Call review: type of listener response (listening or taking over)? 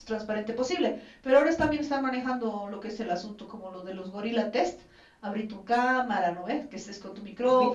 taking over